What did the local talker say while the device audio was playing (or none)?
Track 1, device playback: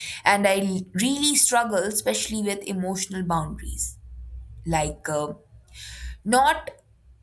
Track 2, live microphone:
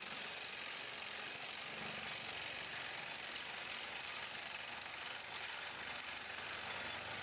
none